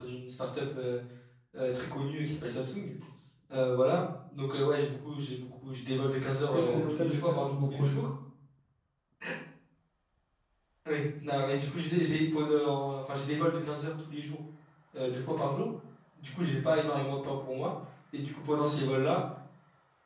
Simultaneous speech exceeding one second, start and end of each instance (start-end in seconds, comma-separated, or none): 6.5-8.1